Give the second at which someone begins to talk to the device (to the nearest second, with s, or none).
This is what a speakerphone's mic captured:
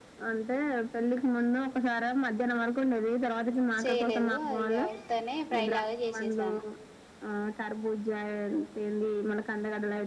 4 s